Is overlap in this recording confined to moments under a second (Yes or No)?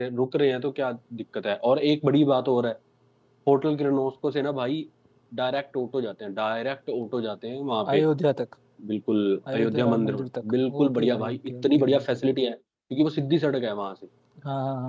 No